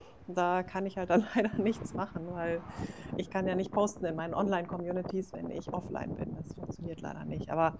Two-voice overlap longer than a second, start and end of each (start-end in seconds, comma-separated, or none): none